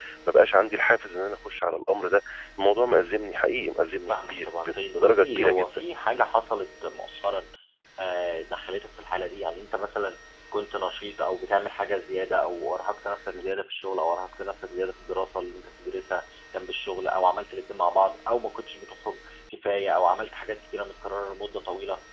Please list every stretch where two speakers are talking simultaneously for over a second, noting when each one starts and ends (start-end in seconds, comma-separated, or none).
4.1-5.8